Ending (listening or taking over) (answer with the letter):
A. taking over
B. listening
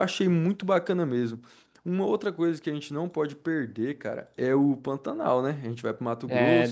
B